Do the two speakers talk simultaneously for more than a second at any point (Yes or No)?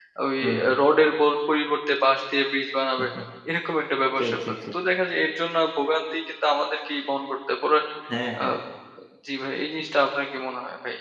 No